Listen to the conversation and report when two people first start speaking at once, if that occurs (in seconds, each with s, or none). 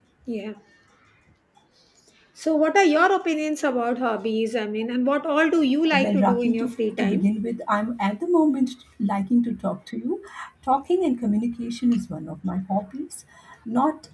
5.9 s